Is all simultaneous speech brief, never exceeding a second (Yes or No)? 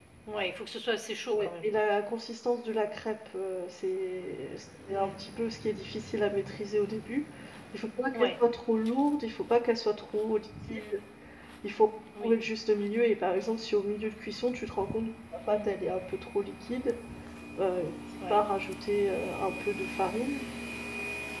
Yes